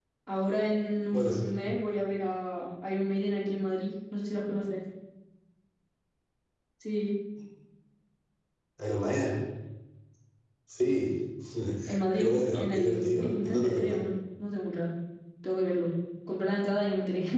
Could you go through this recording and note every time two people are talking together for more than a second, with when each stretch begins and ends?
12.1-14.0

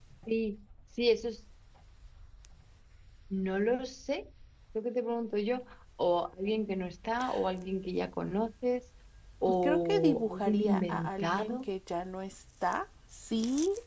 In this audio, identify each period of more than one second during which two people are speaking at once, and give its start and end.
9.6-11.7

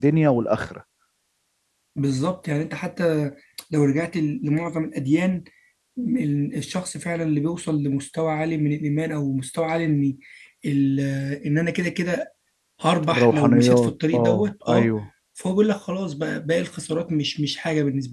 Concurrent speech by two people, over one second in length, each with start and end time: 13.1-14.9

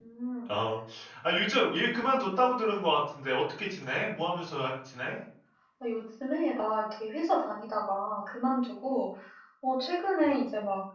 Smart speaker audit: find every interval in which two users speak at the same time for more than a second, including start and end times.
none

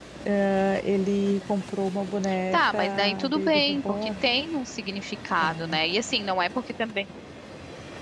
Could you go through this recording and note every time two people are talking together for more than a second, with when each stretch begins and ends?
2.5-4.1

